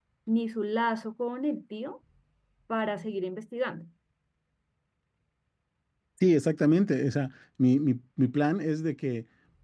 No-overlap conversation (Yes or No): Yes